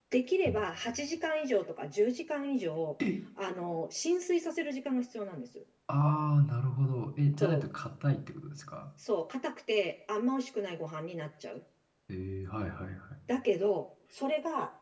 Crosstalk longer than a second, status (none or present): none